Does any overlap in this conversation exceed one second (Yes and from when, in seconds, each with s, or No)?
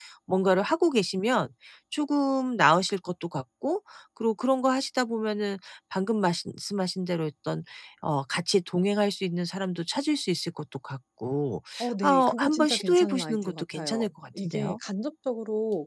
Yes, from 12.0 s